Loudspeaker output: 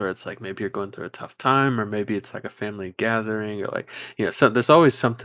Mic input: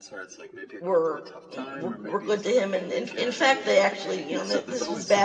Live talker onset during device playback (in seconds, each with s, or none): 0.8 s